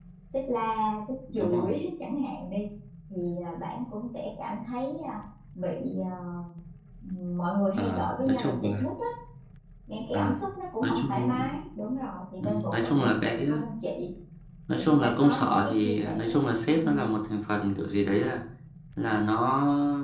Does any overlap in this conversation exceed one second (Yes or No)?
Yes